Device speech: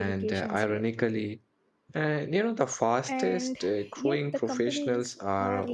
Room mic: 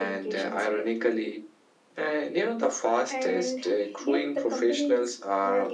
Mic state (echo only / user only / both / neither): echo only